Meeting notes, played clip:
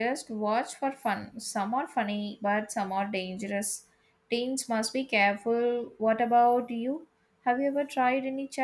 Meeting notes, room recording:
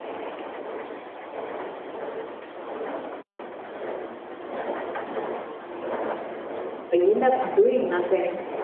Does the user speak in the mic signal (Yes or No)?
Yes